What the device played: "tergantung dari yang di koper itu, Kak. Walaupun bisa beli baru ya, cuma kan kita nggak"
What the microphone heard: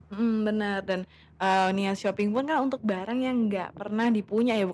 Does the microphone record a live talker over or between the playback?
Yes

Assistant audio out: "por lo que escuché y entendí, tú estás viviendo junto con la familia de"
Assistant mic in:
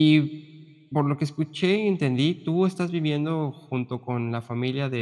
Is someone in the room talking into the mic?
No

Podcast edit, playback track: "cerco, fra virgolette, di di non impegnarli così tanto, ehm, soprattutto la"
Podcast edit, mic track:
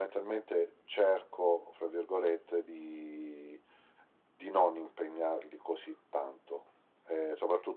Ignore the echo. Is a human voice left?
No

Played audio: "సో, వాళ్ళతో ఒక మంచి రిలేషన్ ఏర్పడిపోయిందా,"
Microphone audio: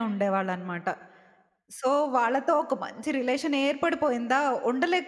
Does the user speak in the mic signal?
No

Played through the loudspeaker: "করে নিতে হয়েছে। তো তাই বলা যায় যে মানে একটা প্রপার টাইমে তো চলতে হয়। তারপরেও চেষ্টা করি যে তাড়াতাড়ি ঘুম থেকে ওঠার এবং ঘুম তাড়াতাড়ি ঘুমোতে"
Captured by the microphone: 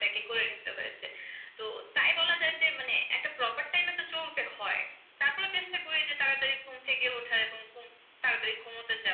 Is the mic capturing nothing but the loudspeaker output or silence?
Yes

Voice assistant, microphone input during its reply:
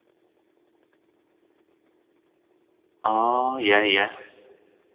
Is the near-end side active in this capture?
Yes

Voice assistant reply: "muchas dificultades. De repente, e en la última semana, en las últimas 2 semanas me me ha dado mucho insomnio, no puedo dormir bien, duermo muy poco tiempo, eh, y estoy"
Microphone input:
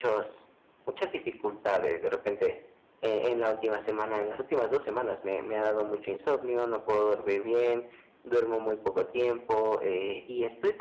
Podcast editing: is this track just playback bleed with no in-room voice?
Yes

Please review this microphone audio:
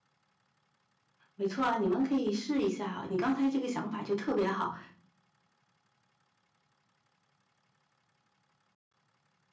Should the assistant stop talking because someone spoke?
Yes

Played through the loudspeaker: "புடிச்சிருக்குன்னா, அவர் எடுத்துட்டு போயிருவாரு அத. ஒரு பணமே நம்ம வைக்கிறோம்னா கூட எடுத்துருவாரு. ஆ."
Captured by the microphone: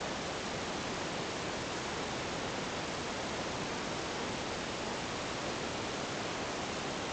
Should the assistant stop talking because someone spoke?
No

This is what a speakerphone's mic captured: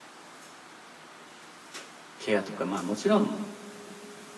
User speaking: Yes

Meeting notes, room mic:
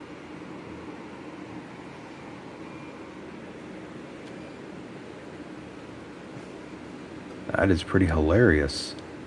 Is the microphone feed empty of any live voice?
No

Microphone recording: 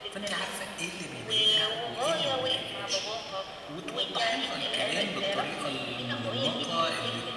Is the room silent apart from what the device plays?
No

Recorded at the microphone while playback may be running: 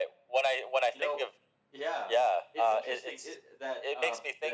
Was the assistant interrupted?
Yes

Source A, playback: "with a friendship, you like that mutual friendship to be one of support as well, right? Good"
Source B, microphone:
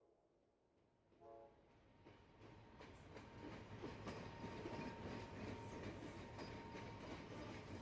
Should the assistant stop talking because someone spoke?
No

